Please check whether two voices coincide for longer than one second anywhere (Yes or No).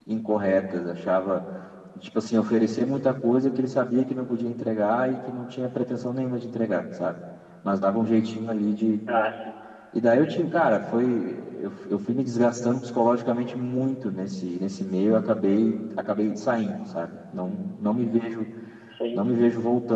No